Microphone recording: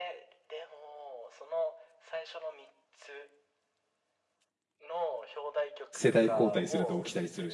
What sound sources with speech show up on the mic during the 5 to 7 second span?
both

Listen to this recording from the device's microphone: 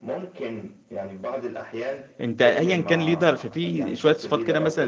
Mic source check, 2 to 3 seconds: both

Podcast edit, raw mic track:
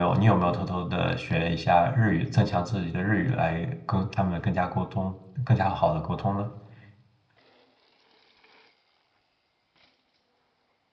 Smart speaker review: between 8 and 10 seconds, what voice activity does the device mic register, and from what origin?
neither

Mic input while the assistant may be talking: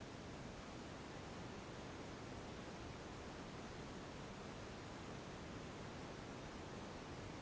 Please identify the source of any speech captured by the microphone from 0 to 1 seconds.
neither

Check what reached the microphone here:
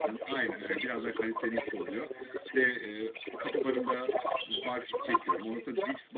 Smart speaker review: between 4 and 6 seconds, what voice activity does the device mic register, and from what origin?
both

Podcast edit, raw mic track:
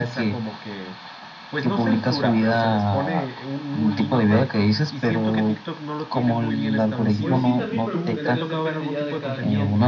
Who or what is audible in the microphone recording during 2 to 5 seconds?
echo only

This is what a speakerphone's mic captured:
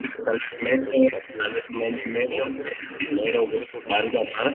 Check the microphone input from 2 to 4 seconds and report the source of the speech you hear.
both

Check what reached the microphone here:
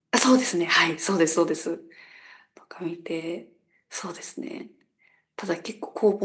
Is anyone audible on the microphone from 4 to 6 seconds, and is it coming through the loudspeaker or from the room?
echo only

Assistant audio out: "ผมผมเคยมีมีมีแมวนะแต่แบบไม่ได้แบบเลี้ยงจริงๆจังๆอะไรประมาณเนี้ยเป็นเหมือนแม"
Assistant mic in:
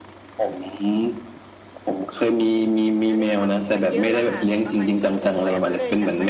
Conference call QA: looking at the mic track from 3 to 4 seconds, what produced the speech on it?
both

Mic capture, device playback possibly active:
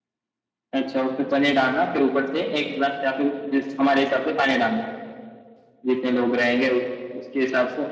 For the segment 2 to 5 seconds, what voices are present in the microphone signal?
echo only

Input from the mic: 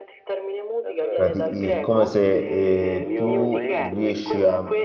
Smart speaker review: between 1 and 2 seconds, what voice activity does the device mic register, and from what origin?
both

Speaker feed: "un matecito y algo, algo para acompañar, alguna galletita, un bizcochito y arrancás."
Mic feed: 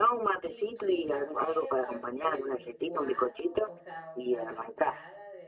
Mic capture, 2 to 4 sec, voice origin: both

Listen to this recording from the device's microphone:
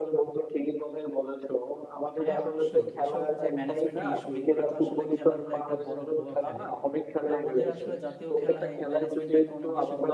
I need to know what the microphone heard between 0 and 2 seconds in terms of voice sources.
echo only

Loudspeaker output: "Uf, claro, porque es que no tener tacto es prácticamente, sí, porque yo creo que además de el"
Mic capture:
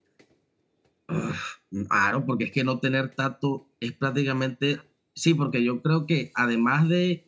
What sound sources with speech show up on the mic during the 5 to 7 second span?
echo only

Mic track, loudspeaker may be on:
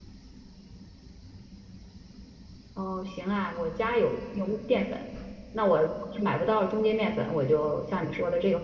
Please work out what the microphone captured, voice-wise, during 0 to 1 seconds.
neither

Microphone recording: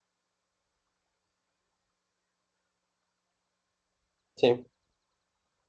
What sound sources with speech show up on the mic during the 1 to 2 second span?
neither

